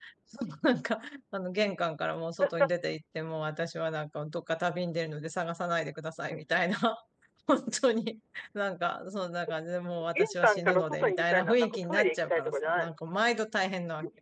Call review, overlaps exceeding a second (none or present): present